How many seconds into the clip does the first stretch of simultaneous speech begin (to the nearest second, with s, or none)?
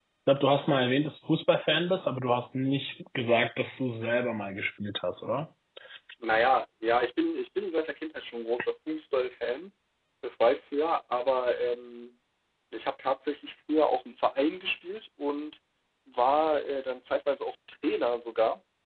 none